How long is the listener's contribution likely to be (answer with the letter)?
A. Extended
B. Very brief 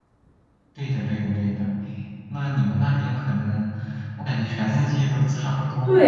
A